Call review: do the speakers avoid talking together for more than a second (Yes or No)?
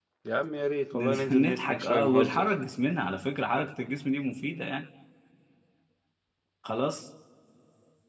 No